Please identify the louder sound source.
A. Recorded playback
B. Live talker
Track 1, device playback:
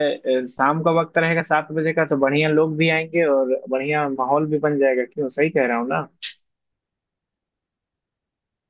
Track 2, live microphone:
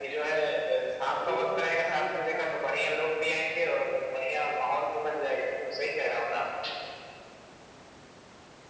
A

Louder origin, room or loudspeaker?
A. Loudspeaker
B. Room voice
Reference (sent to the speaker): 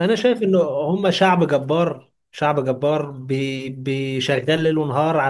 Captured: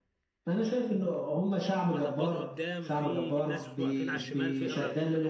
A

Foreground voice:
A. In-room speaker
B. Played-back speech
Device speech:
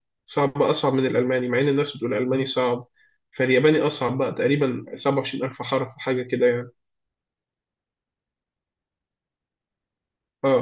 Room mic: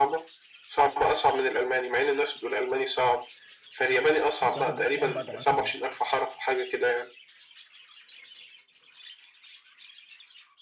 B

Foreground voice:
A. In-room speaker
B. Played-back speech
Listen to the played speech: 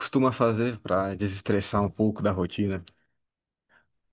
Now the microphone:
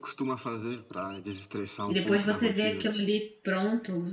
A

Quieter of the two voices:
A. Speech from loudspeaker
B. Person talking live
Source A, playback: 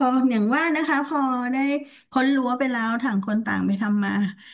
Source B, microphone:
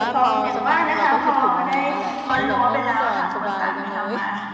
B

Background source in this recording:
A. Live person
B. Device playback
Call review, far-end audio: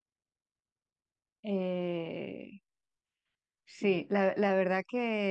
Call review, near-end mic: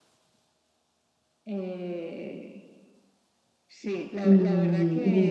B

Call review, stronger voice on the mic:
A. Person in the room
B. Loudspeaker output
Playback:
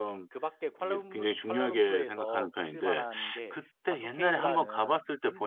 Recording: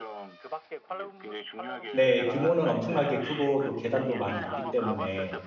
A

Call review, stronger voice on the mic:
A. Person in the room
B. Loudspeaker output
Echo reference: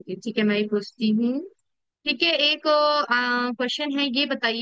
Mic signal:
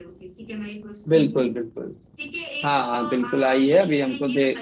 A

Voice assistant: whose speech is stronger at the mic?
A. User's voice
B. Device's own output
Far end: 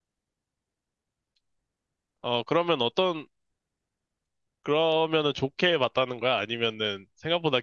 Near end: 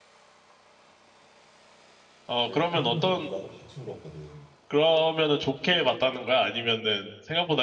B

